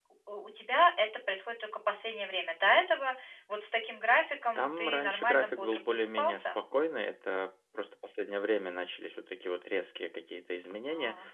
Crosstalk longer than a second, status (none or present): present